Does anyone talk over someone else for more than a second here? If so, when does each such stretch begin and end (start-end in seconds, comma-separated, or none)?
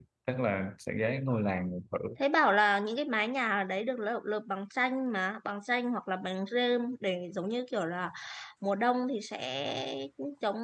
none